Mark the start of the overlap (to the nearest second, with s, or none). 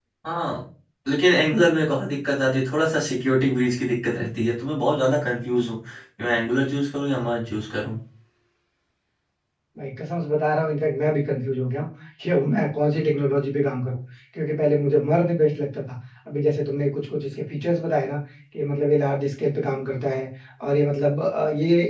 none